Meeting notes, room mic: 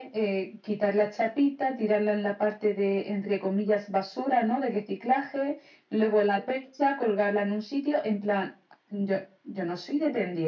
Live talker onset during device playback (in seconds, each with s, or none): none